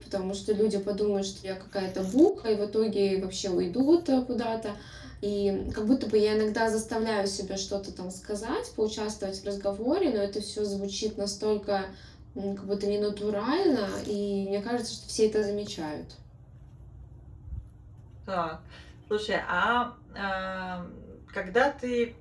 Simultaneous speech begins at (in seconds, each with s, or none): none